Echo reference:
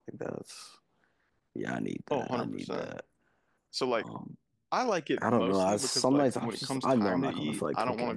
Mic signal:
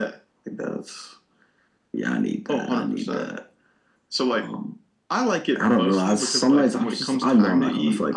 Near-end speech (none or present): none